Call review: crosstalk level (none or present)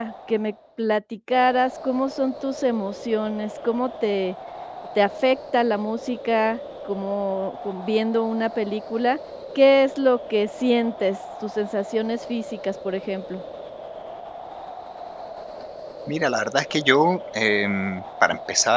none